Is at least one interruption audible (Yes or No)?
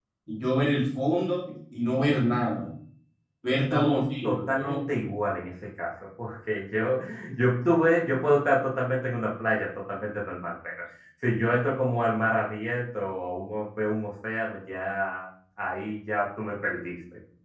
Yes